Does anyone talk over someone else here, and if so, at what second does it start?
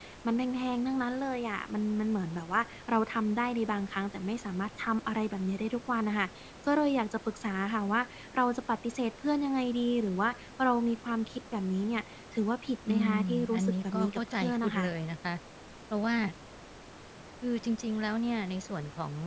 13 s

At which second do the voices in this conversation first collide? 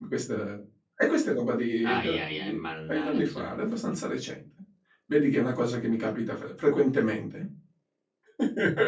2 s

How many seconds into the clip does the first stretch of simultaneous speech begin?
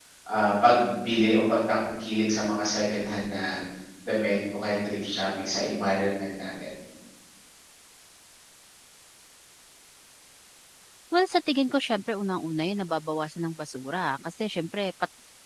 none

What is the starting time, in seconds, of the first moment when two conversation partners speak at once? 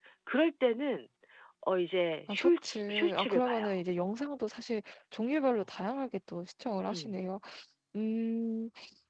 2 s

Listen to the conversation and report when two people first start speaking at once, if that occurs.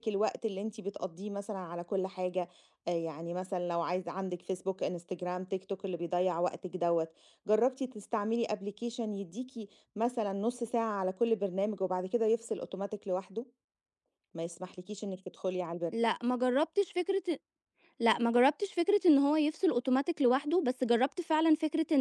none

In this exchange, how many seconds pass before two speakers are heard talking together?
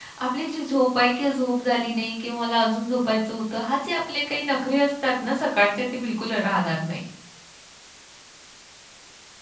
none

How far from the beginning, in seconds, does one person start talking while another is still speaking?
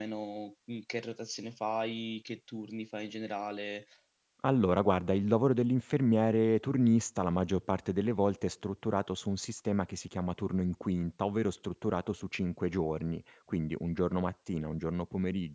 none

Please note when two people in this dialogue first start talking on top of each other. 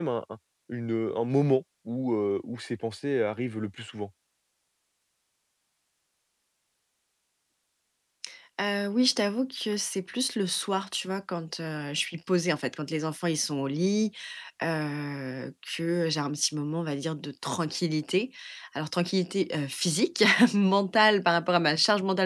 none

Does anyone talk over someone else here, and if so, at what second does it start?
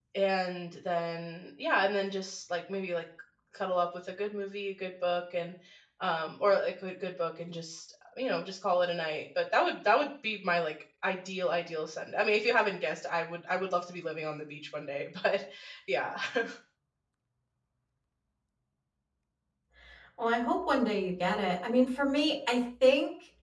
none

